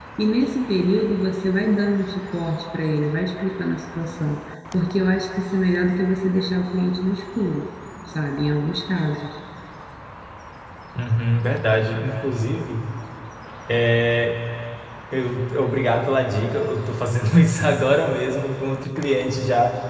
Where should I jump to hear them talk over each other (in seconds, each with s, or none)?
none